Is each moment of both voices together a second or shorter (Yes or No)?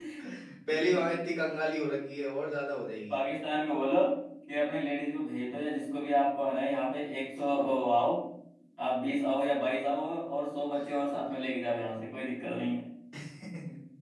Yes